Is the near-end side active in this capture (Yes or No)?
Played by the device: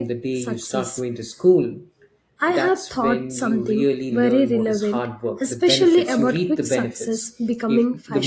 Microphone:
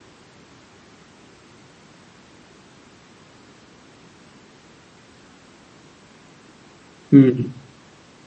Yes